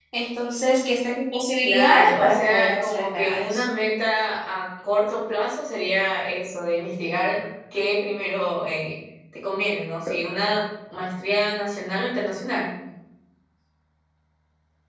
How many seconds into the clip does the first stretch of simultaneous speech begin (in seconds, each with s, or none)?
1.6 s